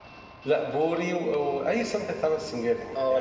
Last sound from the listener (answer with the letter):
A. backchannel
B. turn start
B